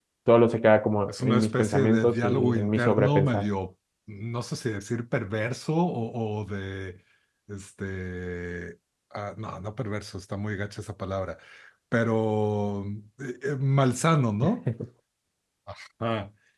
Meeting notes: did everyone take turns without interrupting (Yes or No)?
No